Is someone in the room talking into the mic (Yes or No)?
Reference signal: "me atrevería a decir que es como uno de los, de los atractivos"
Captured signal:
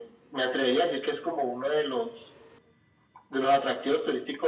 No